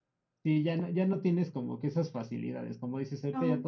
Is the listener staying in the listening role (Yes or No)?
Yes